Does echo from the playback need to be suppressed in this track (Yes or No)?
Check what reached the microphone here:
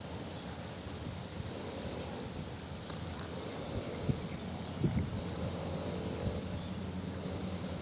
No